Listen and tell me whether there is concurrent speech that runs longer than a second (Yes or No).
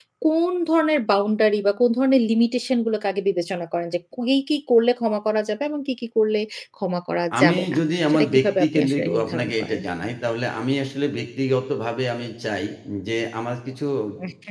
Yes